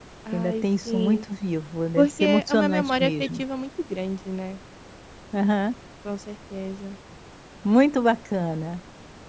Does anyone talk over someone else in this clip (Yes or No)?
Yes